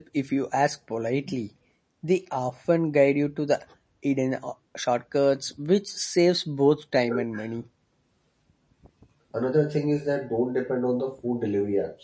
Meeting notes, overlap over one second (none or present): none